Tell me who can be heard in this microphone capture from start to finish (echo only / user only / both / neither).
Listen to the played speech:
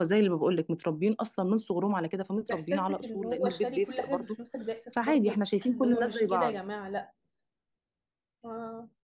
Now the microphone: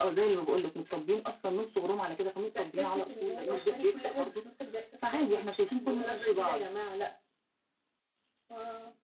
echo only